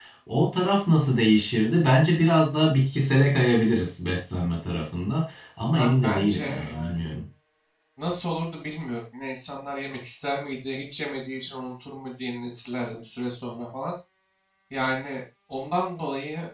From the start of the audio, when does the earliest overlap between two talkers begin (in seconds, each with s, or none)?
5.7 s